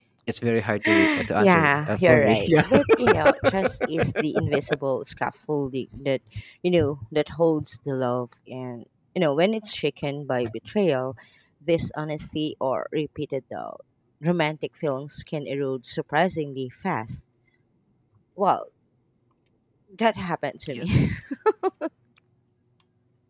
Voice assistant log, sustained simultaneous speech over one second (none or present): present